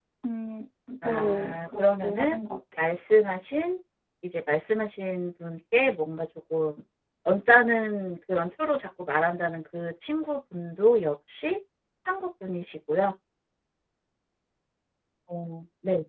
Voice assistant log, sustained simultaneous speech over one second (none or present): present